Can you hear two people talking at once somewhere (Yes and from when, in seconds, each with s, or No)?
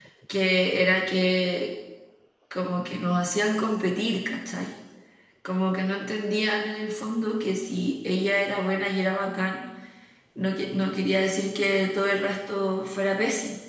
No